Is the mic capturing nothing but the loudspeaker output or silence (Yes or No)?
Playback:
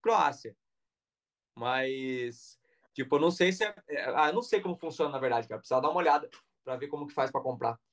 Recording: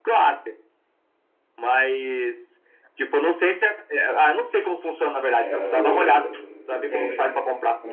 No